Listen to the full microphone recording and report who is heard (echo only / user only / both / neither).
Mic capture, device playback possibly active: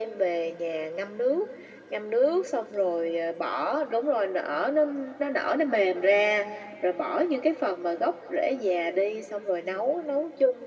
echo only